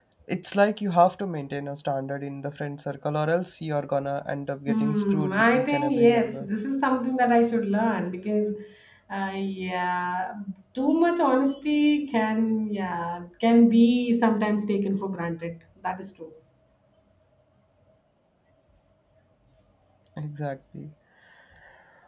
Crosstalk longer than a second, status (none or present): present